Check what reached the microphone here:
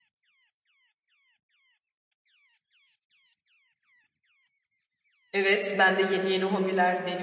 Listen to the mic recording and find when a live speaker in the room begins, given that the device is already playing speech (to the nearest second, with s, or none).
5 s